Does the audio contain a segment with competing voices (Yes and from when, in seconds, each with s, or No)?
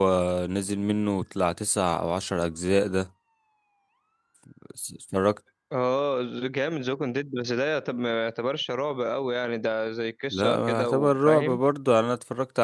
Yes, from 10.3 s